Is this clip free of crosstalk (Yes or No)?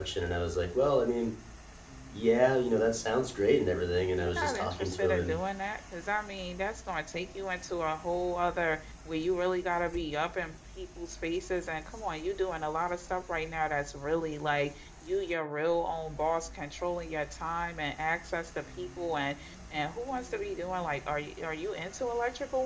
No